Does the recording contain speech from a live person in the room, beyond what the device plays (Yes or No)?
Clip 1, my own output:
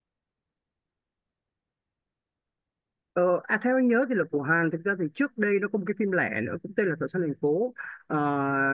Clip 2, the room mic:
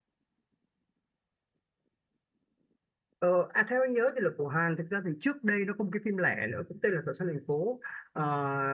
No